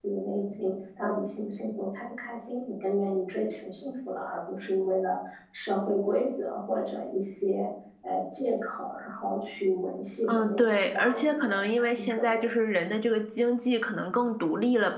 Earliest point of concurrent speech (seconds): 10 s

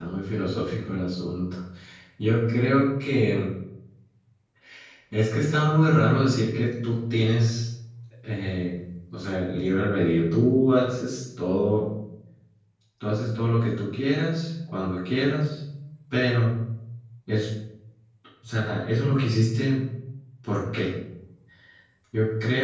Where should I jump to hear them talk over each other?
none

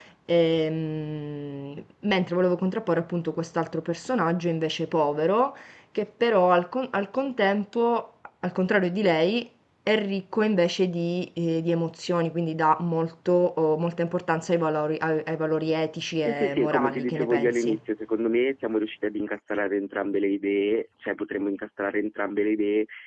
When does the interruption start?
16 s

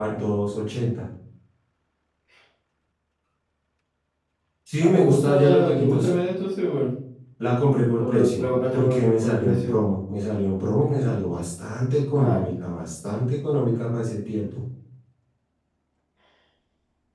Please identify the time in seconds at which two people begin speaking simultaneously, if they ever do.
5 s

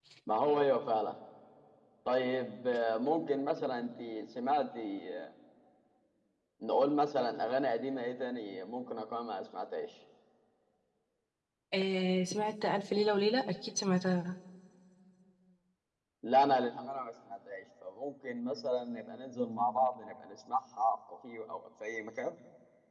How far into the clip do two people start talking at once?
none

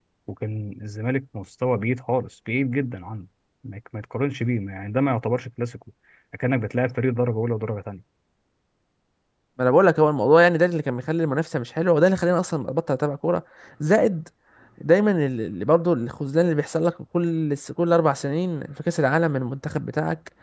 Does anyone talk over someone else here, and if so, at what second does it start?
none

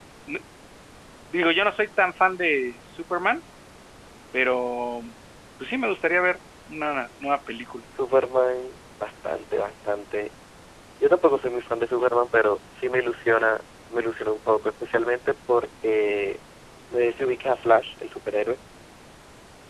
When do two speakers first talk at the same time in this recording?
none

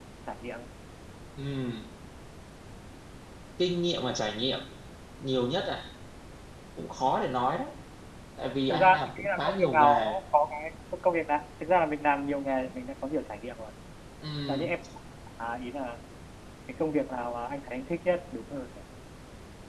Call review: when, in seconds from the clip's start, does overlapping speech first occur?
9 s

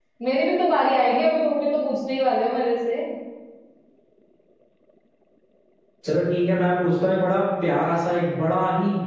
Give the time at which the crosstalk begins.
none

